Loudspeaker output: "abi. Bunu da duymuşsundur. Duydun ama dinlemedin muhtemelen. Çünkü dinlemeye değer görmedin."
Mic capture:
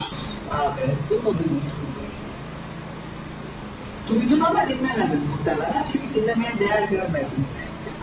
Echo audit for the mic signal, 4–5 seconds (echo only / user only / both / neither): echo only